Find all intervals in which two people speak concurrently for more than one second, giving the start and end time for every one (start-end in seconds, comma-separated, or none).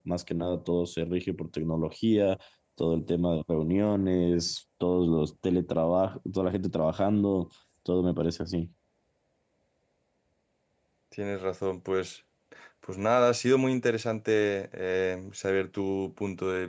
none